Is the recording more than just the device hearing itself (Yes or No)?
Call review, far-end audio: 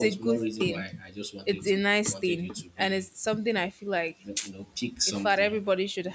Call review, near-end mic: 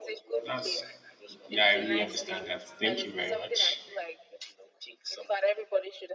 Yes